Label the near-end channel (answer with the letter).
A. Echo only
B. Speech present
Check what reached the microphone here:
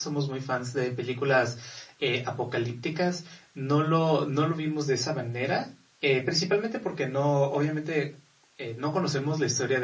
B